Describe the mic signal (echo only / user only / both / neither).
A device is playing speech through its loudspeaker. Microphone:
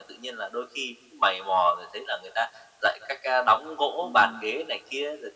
both